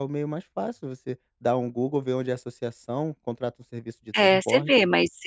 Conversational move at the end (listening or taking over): taking over